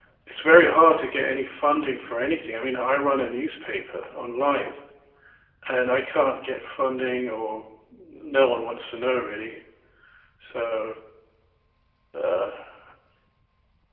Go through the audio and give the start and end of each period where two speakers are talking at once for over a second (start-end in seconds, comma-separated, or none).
none